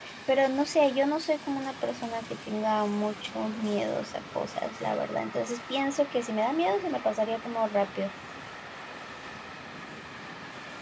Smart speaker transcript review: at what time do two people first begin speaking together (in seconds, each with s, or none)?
none